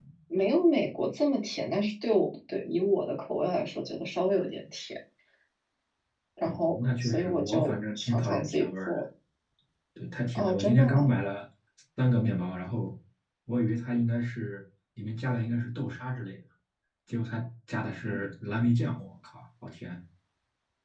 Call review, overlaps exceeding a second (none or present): present